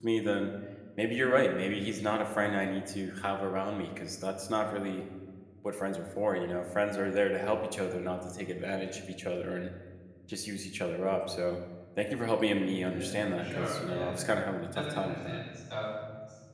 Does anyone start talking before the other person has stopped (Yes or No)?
Yes